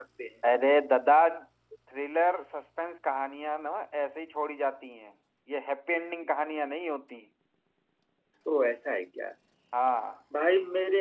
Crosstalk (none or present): none